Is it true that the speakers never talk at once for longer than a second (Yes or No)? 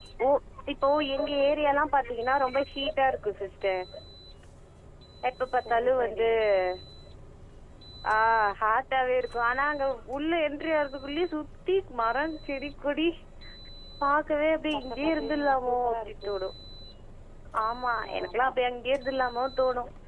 No